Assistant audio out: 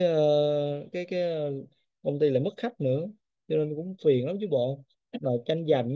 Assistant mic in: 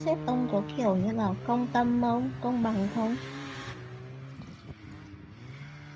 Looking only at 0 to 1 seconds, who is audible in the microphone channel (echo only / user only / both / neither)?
user only